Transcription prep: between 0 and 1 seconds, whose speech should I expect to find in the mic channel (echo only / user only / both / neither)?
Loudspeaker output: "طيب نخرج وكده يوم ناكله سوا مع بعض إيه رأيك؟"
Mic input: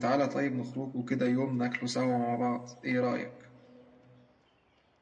echo only